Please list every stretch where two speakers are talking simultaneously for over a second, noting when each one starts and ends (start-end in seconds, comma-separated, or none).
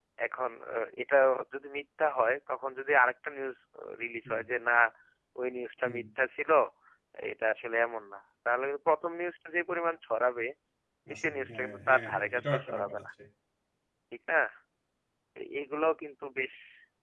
11.2-13.0